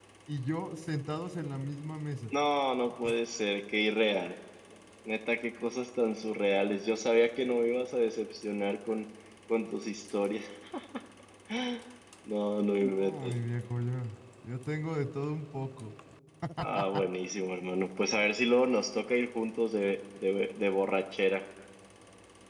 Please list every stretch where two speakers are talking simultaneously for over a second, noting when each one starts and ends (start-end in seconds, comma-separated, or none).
none